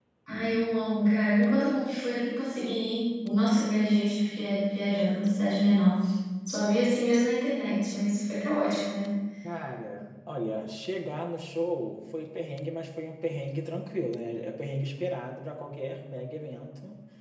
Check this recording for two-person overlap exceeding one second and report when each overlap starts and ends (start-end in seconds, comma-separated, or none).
none